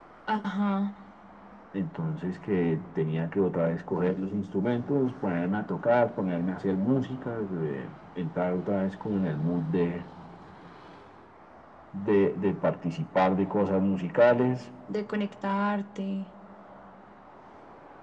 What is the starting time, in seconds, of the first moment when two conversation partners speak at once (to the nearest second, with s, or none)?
none